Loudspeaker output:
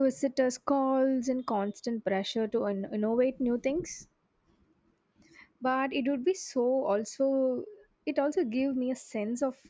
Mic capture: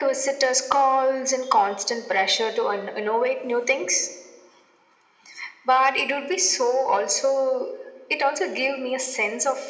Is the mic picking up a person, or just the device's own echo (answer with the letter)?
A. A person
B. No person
B